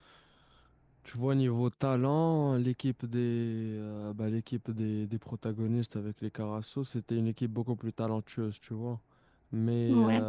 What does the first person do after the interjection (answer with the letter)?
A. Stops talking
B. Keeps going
B